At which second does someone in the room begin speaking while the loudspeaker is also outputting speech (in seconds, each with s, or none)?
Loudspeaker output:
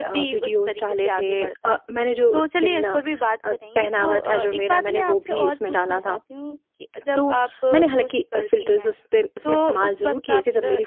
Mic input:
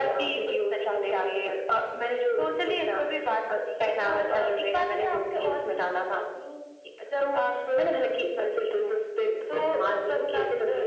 none